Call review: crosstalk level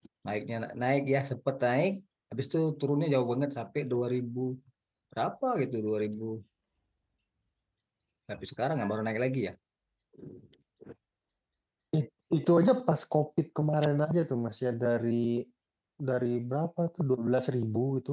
none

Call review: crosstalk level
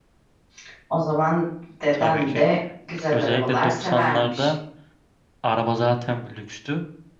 present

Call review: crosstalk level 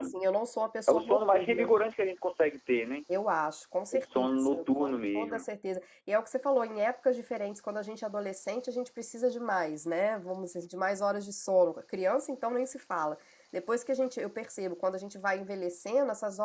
present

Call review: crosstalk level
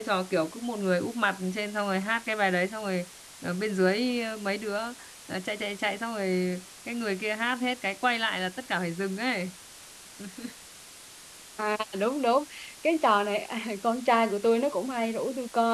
none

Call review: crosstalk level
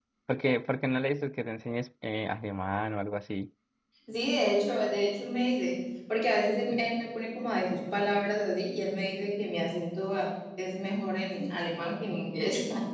none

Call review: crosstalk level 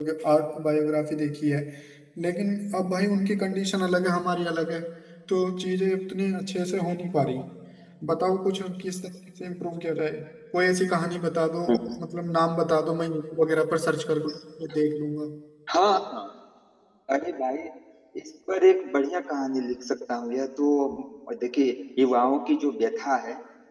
none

